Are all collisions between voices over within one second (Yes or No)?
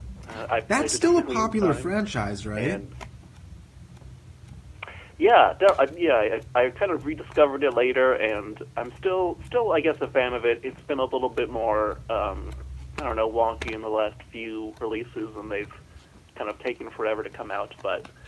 No